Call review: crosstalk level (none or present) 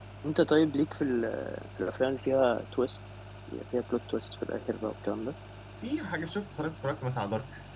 none